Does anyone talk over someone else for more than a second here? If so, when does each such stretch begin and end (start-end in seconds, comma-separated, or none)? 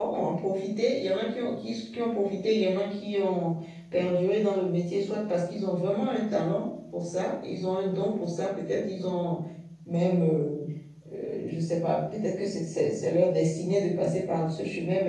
none